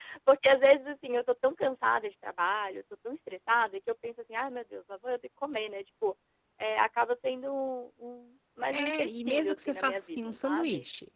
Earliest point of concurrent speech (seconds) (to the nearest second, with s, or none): 9 s